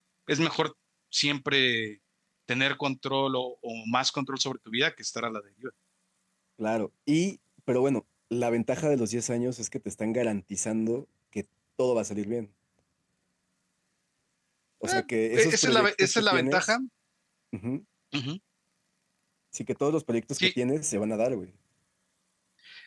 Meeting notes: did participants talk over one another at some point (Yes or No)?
Yes